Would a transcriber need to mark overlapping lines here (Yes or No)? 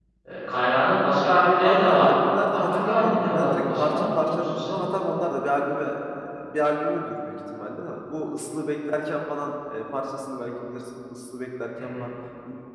Yes